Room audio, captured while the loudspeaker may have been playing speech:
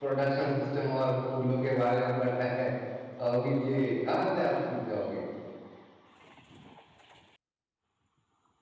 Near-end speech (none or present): present